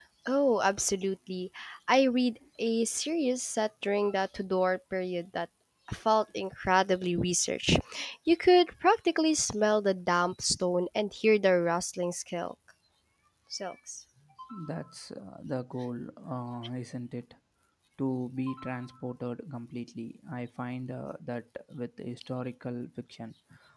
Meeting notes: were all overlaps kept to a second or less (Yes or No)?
Yes